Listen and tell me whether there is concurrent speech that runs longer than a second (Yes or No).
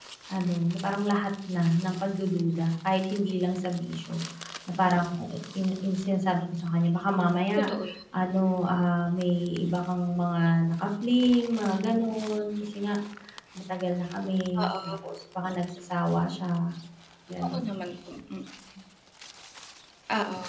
No